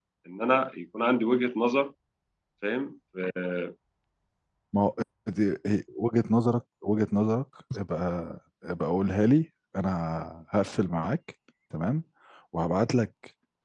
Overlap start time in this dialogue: none

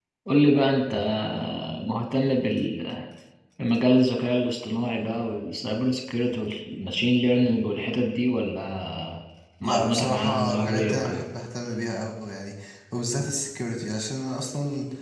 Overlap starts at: 9.6 s

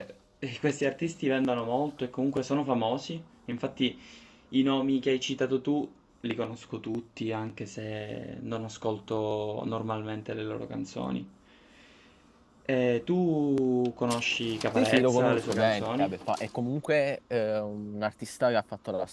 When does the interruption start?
14.8 s

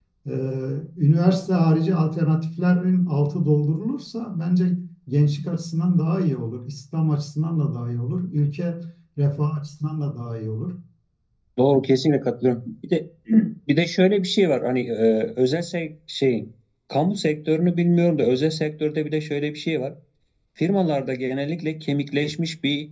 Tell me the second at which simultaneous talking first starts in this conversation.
none

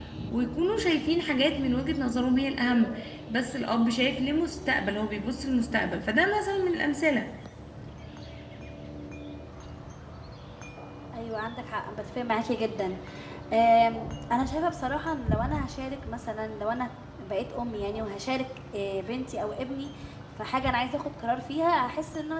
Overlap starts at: none

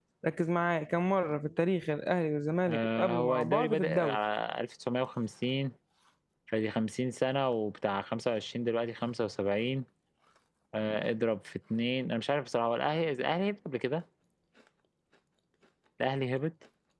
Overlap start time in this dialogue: 2.7 s

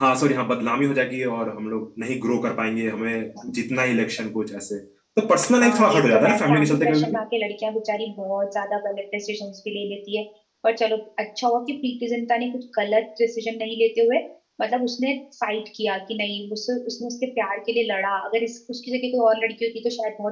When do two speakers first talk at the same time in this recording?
5.6 s

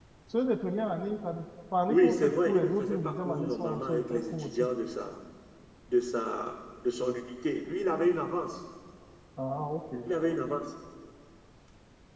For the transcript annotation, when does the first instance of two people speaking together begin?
1.9 s

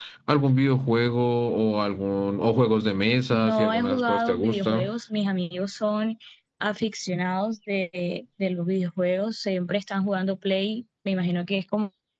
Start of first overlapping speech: 3.3 s

